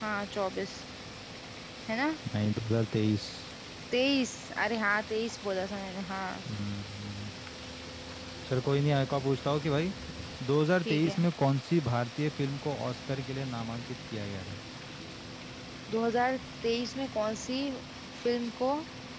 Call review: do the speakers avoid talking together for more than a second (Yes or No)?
Yes